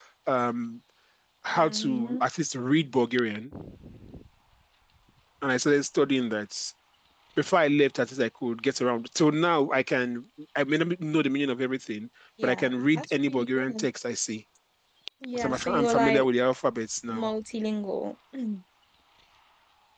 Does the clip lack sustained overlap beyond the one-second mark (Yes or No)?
No